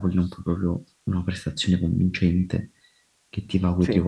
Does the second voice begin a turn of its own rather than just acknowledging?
No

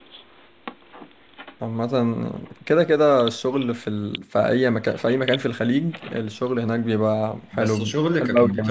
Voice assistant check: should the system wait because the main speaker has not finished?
No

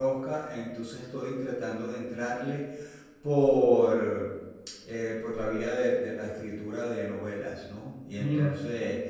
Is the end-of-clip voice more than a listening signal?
No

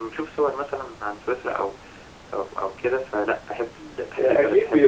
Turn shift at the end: Yes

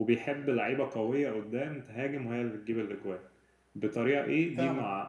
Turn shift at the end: No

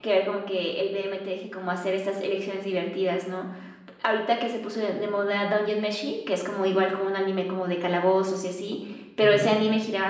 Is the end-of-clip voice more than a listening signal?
No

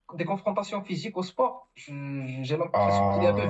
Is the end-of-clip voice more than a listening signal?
Yes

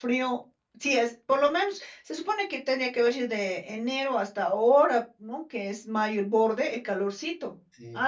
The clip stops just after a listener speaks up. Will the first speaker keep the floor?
Yes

